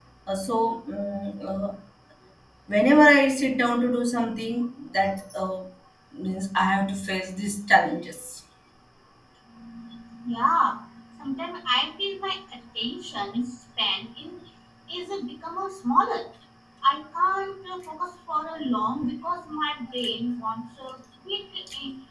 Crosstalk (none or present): none